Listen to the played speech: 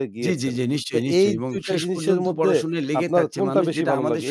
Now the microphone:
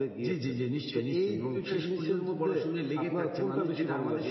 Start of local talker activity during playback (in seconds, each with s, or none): none